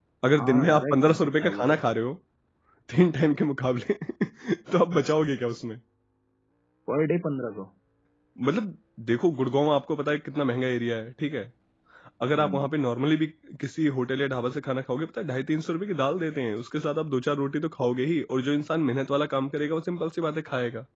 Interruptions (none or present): present